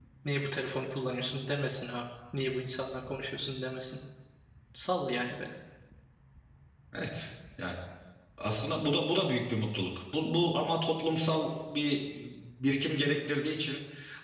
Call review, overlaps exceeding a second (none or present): none